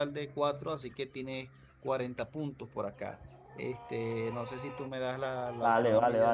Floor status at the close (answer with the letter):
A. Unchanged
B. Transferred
B